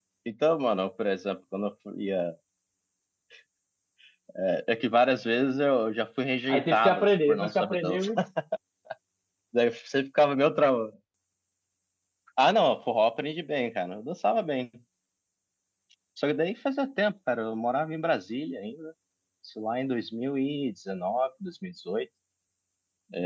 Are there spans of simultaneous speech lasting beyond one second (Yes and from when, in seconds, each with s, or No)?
Yes, from 6.5 s